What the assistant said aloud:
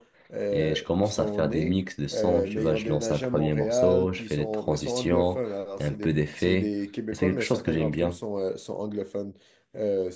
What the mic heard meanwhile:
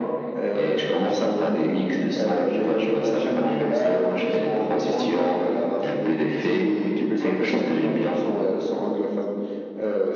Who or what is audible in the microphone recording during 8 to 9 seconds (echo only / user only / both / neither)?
echo only